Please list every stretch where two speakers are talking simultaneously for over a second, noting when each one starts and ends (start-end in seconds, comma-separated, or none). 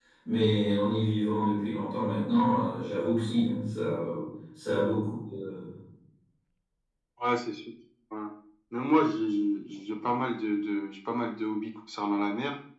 none